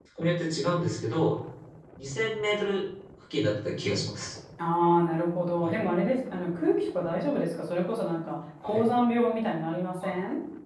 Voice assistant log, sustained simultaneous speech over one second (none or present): none